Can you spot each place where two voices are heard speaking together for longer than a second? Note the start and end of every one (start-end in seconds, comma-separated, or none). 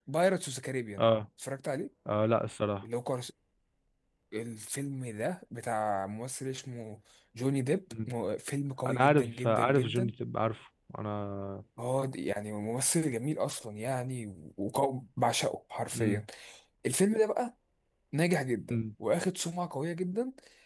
8.8-10.1